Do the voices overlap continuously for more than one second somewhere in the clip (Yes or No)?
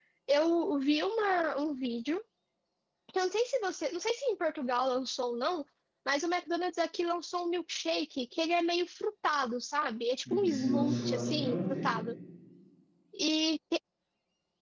Yes